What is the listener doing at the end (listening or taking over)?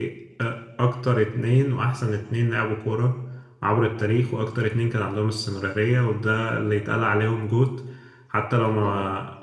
listening